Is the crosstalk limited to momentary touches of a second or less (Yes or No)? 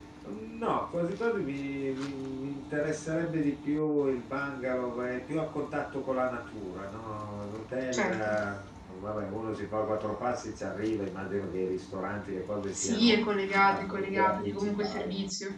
No